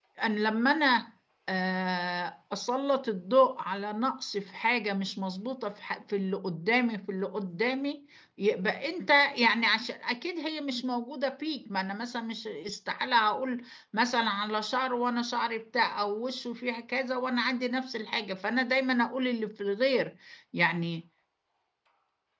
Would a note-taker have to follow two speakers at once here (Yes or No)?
No